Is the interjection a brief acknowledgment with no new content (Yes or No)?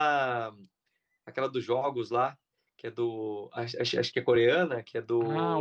No